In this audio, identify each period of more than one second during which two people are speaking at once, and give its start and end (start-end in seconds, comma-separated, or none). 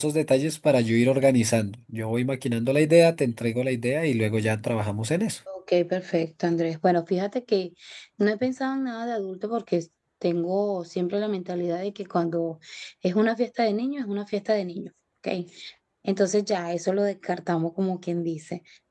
none